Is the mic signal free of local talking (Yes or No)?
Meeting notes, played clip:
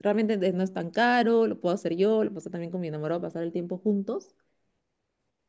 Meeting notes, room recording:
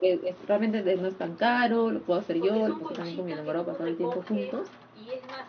No